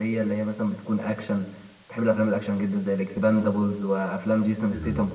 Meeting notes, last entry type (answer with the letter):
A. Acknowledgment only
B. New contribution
A